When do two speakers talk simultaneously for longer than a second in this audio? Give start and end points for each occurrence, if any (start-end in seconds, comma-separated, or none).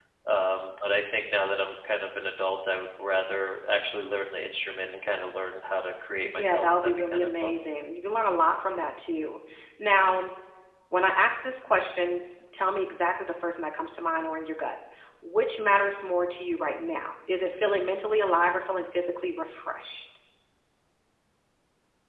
6.3-7.6